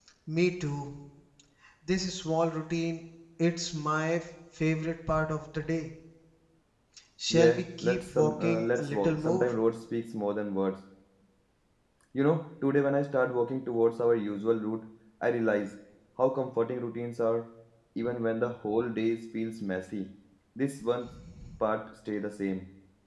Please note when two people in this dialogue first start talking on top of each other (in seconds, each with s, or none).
7.3 s